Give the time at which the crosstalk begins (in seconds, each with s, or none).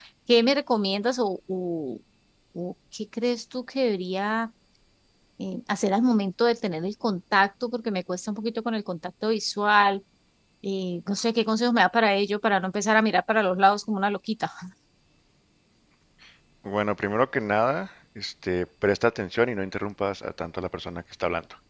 none